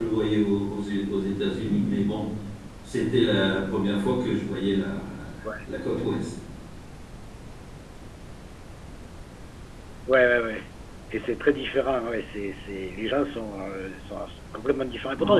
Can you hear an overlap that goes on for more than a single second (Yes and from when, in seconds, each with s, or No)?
No